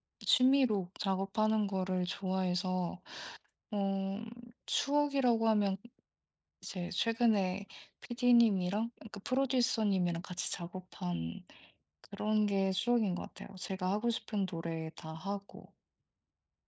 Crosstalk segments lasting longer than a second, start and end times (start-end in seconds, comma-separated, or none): none